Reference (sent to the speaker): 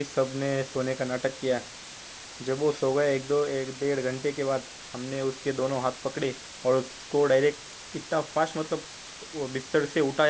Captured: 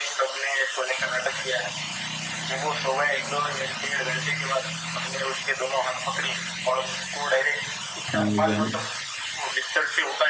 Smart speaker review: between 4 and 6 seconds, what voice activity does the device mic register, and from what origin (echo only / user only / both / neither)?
echo only